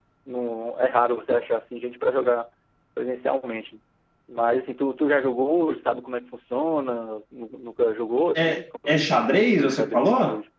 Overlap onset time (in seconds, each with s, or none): 8.3 s